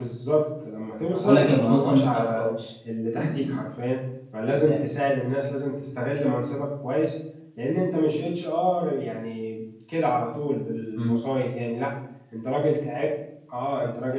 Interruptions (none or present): present